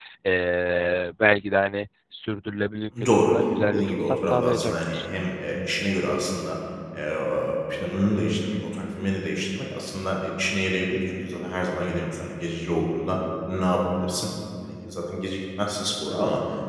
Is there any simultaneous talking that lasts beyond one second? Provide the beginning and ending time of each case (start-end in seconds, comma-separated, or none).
3.7-5.1